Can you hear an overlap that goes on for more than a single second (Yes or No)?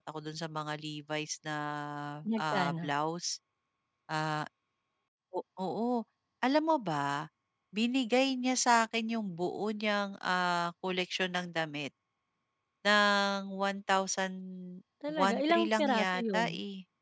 Yes